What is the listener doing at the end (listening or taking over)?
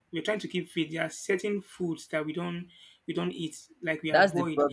taking over